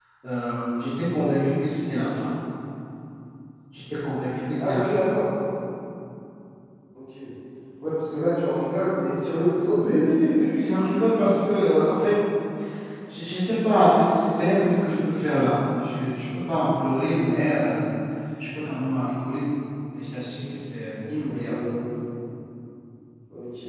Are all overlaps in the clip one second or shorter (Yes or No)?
Yes